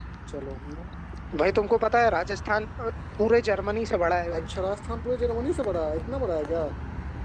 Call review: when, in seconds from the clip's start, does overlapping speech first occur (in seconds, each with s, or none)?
none